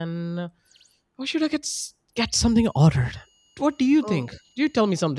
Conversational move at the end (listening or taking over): listening